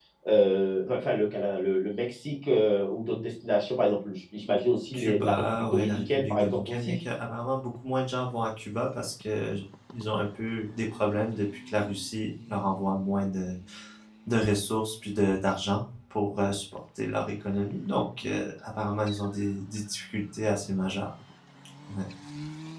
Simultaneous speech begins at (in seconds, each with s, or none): 4.9 s